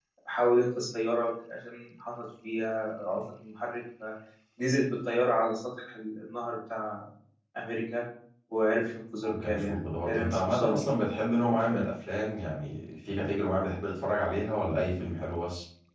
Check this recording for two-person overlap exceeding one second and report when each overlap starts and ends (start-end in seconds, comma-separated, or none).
9.2-10.8